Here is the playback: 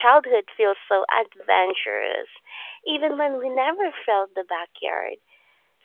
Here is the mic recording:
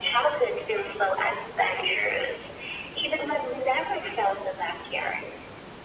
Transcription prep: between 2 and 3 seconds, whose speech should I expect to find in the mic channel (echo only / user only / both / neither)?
echo only